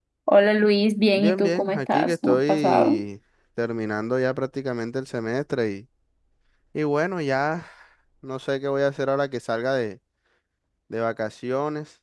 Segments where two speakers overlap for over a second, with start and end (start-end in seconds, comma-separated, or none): 1.2-3.0